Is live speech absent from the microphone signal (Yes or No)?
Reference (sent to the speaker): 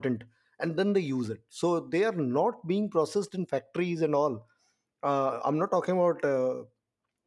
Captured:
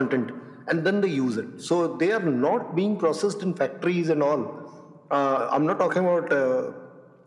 Yes